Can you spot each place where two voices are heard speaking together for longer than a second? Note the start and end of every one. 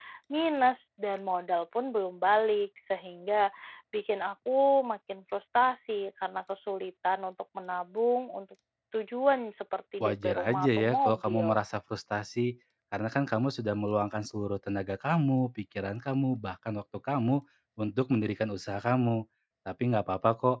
10.0-11.6

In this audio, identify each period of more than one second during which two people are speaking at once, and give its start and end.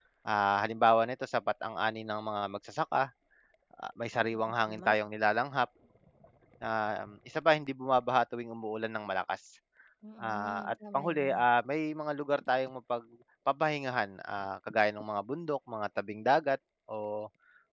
10.2-11.4

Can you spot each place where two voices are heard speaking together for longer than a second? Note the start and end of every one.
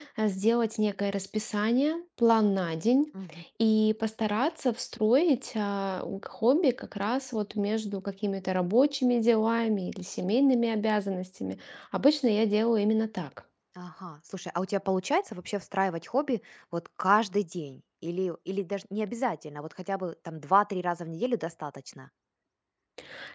none

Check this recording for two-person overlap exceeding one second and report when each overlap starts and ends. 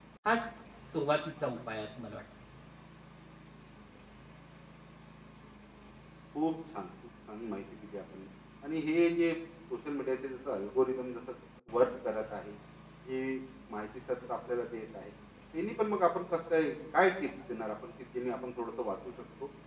none

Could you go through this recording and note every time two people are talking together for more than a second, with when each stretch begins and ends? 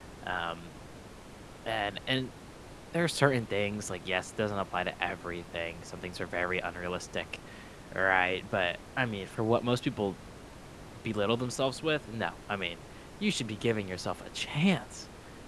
none

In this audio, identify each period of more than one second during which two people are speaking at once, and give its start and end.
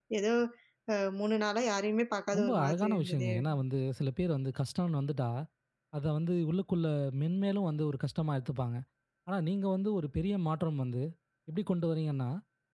2.4-3.6

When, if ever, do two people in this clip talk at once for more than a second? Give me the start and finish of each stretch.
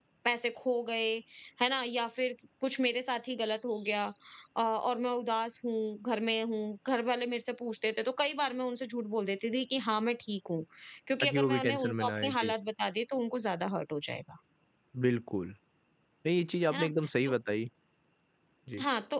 11.2-12.5

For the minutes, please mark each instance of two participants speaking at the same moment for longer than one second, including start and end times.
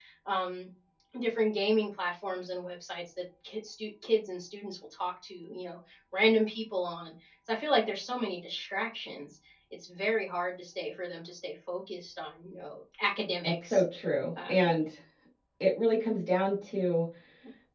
none

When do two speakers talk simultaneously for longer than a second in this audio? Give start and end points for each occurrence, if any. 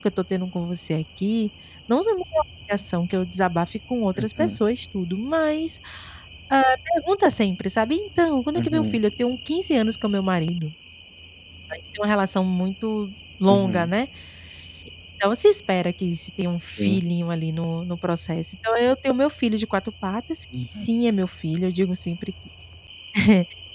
none

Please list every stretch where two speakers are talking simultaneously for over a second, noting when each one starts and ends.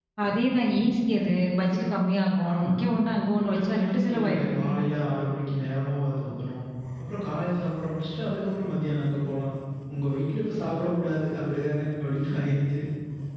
3.4-4.7

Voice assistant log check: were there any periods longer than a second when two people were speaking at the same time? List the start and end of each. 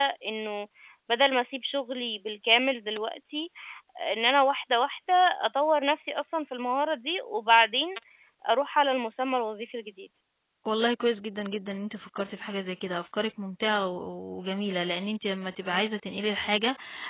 none

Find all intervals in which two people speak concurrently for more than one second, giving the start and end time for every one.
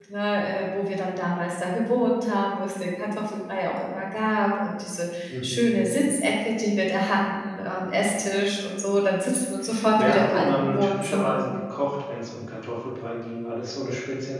10.0-11.4

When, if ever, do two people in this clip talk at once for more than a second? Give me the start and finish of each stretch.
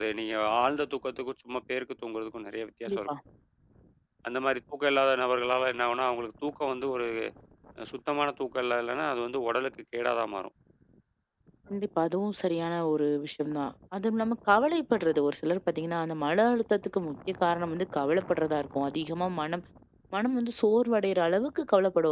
none

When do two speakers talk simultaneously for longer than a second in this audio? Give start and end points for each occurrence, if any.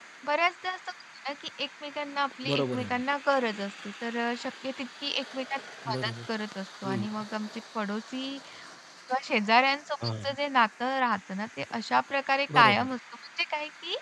none

